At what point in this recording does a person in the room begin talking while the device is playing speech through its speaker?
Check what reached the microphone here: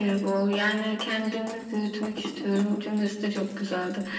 none

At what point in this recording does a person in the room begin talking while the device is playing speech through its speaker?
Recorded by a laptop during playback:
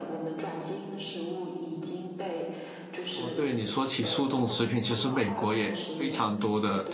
3.1 s

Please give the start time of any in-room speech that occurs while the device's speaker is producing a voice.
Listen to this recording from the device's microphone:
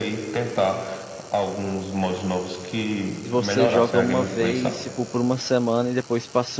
3.2 s

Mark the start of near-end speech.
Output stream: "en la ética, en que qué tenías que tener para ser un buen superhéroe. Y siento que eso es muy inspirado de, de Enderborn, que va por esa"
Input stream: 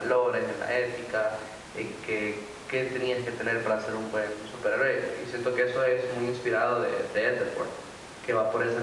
none

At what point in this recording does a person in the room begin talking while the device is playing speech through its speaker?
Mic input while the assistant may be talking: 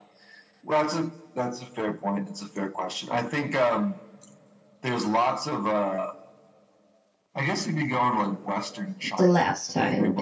9.2 s

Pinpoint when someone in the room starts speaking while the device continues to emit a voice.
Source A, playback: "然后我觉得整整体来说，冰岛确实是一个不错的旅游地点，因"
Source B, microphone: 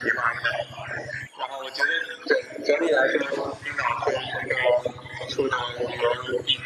none

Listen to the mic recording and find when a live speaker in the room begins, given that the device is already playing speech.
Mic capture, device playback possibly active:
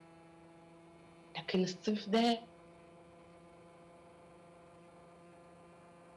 1.4 s

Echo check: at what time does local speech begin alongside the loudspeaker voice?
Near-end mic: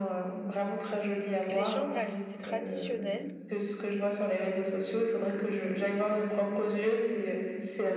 1.5 s

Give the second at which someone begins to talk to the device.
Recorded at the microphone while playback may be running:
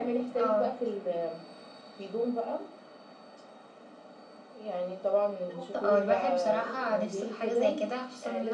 none

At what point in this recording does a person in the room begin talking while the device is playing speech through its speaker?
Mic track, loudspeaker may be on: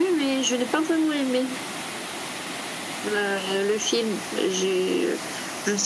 none

